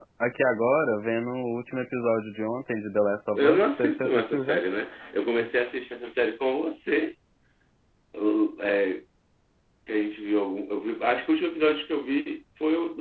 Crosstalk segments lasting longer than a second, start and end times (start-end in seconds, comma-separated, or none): 3.4-4.6